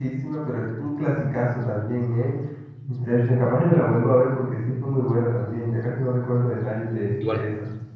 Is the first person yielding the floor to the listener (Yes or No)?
Yes